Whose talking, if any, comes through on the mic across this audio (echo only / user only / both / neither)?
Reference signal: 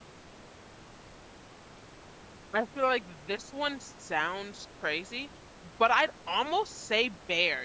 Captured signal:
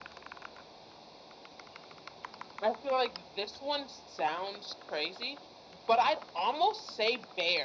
echo only